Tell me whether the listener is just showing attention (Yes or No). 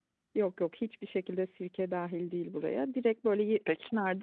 Yes